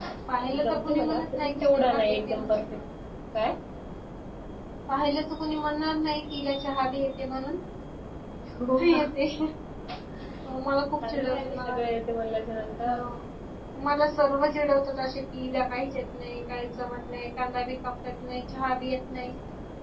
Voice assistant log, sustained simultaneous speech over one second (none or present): present